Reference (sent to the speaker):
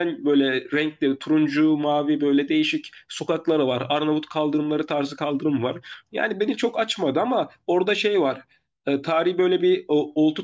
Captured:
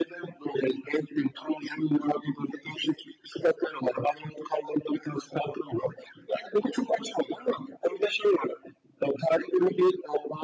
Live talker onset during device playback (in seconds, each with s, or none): none